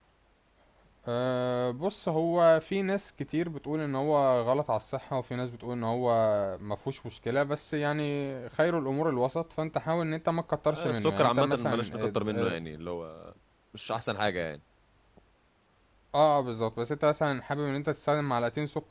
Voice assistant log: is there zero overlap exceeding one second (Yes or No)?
No